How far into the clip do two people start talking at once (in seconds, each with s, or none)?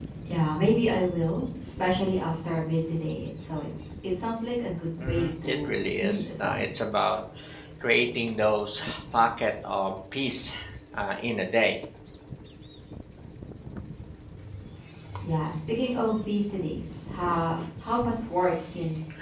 5.0 s